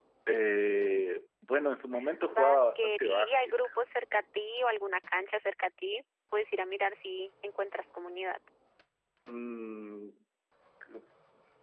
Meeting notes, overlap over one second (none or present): present